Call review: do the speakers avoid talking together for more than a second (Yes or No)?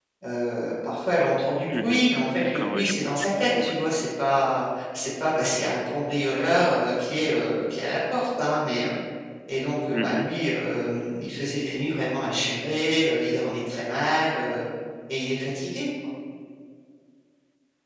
No